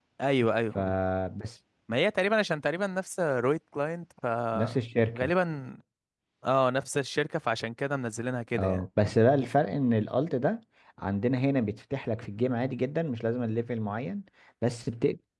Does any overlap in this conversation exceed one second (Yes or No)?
No